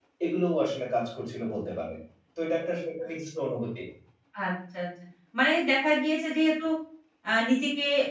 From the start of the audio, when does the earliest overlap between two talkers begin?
none

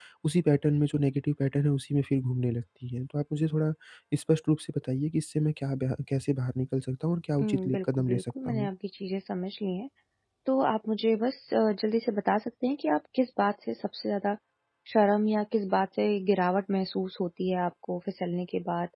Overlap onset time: 7.4 s

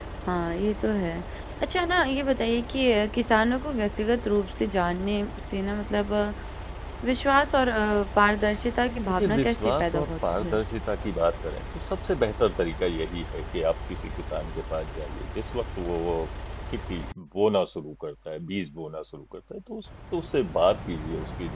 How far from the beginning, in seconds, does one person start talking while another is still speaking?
9.1 s

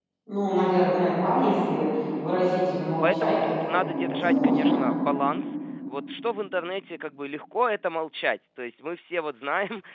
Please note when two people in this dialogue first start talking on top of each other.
3.0 s

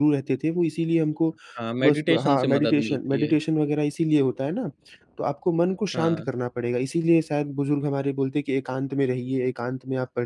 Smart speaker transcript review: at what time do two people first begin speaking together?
1.8 s

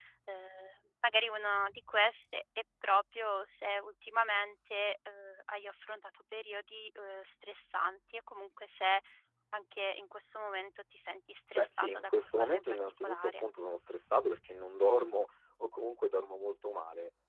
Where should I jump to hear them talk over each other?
11.6 s

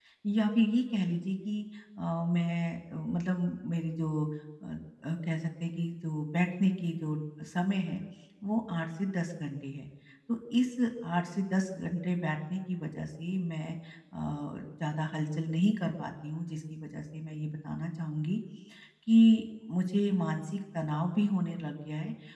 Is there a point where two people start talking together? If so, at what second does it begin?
none

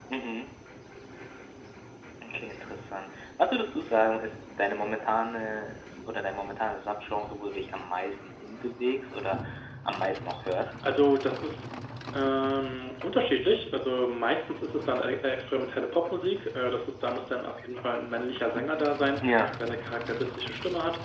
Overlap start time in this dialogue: none

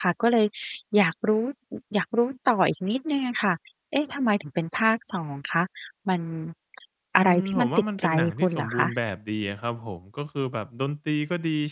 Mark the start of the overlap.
7.2 s

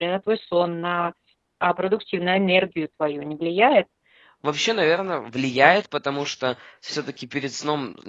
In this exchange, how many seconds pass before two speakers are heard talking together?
none

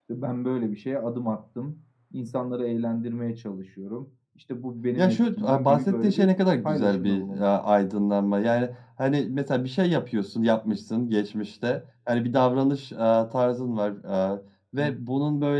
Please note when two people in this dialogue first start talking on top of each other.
5.0 s

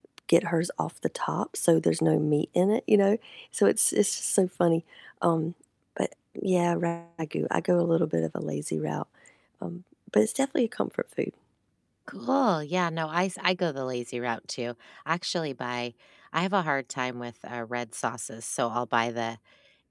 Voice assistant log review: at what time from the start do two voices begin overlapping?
none

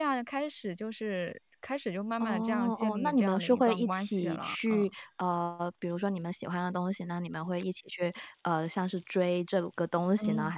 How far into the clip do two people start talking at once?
2.2 s

